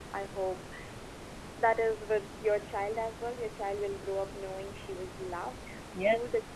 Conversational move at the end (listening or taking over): taking over